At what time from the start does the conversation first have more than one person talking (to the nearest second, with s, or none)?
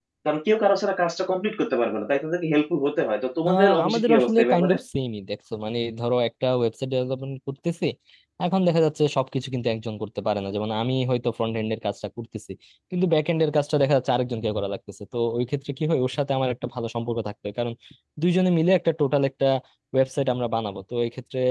3 s